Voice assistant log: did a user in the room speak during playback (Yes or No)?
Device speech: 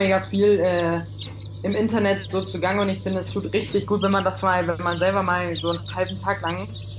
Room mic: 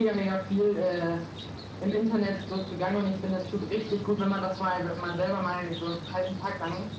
No